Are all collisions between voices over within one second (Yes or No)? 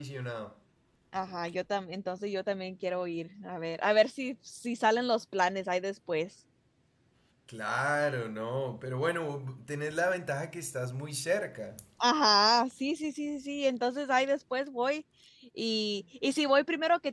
Yes